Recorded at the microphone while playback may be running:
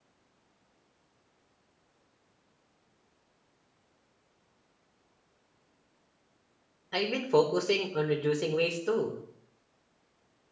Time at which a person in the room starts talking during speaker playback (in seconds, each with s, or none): 6.9 s